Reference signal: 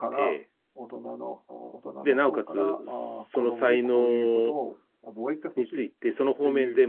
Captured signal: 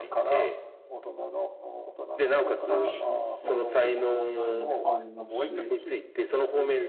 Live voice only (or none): まあ、金銭的な問題もありますし、